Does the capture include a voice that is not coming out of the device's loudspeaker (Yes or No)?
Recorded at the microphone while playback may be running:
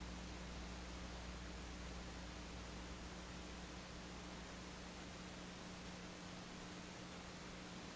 No